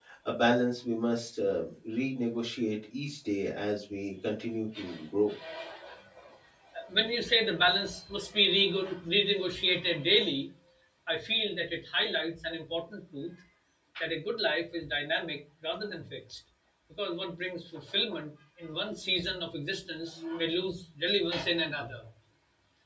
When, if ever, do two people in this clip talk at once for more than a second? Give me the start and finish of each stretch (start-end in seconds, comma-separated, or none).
none